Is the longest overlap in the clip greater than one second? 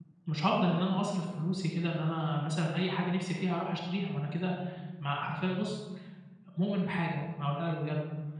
No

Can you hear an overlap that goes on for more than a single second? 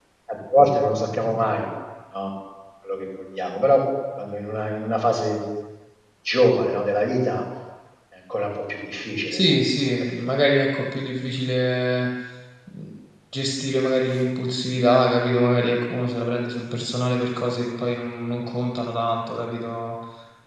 No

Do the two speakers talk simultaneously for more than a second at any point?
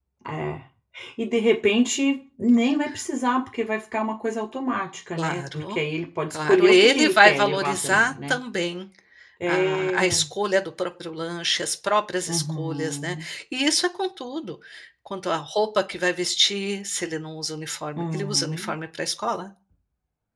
Yes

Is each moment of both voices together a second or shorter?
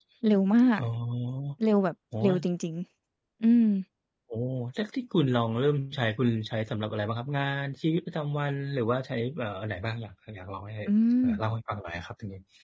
Yes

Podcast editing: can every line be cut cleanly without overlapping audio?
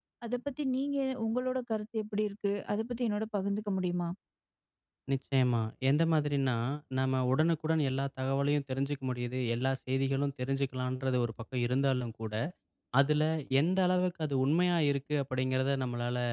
Yes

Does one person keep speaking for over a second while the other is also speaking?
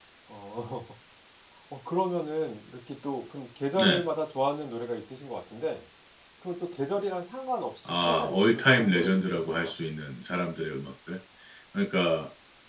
Yes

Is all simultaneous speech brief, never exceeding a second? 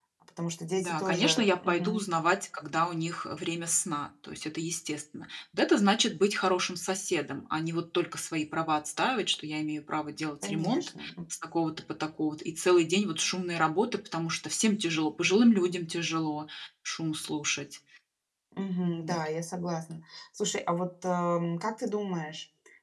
No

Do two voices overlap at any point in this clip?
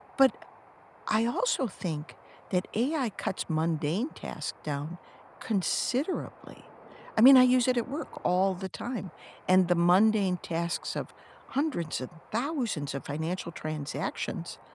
No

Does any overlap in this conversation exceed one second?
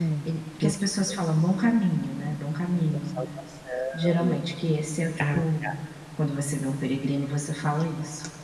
No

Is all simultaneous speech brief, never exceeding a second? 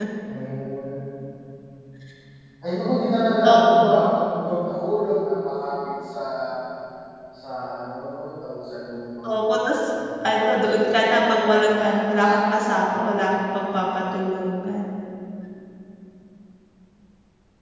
No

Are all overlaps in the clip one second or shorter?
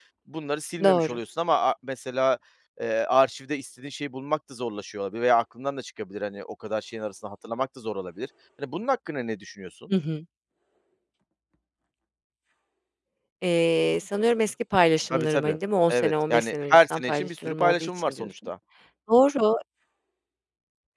No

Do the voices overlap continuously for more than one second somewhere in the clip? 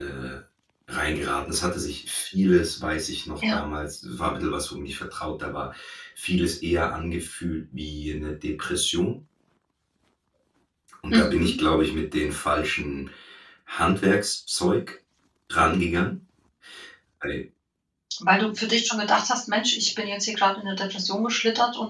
No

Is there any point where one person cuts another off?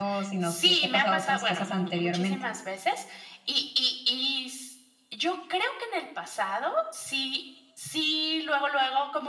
Yes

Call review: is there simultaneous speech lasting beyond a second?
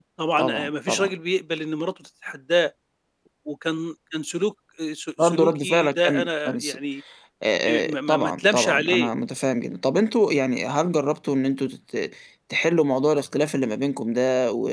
Yes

